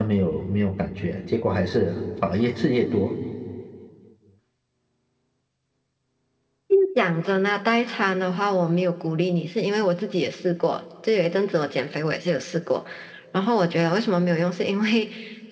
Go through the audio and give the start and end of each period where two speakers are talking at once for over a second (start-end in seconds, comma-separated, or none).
none